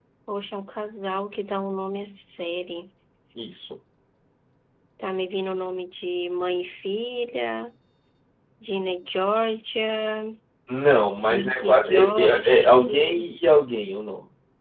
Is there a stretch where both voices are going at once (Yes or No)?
Yes